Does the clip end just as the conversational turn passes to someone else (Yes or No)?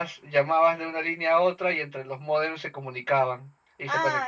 Yes